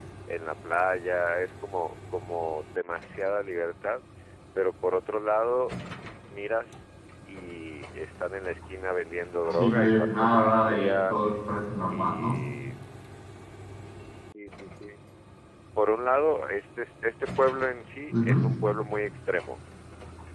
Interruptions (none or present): present